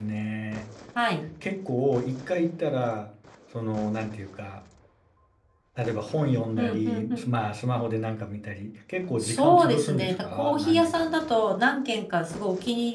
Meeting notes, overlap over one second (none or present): present